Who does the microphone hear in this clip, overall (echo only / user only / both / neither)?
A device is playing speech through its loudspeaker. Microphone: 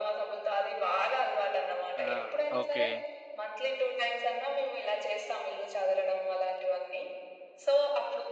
both